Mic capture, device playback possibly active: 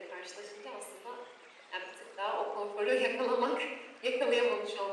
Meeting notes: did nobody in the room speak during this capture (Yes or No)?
Yes